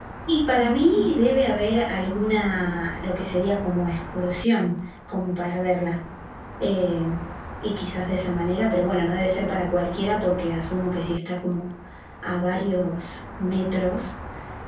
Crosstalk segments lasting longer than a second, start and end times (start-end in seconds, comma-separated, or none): none